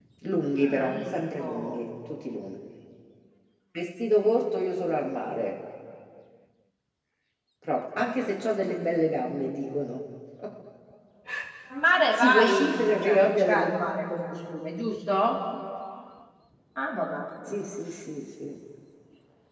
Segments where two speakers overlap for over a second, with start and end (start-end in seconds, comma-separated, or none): 0.6-1.8, 12.2-13.7